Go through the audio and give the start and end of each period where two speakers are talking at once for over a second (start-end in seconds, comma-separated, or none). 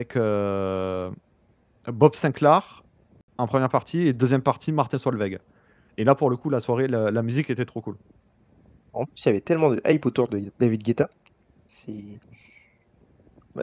none